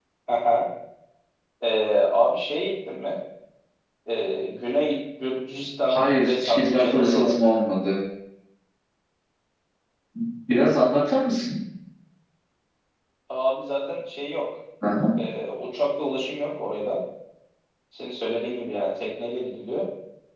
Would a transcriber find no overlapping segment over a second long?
No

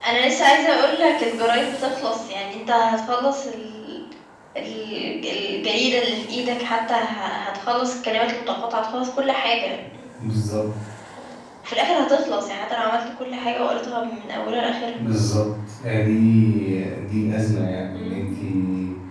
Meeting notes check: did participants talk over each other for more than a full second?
No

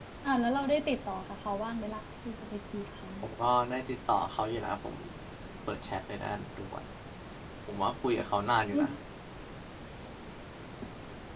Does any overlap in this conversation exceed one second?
No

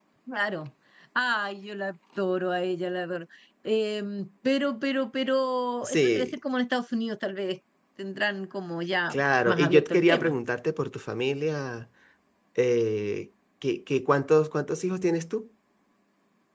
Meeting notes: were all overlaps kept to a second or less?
No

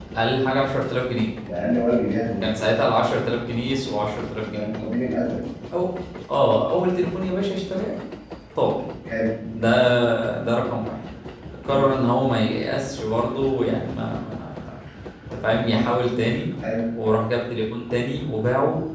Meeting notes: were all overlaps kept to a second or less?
Yes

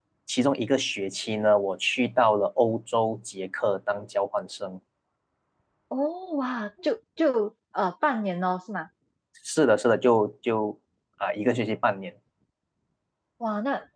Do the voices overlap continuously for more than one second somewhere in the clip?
No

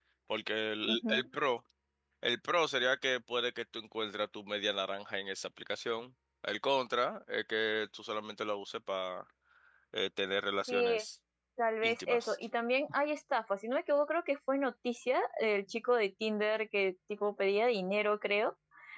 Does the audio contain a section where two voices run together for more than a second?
No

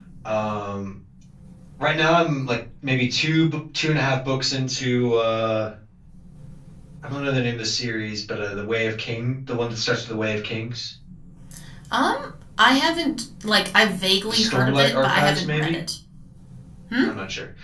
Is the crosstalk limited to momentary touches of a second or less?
No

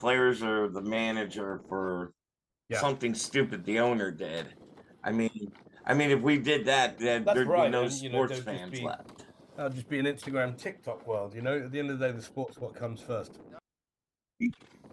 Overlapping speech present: Yes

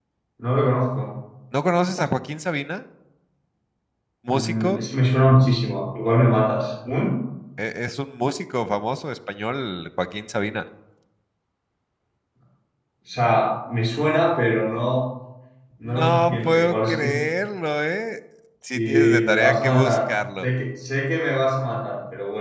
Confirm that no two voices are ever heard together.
No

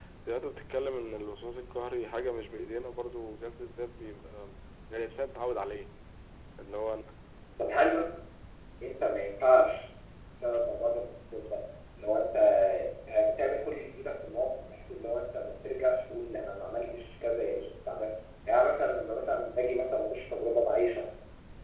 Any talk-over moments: No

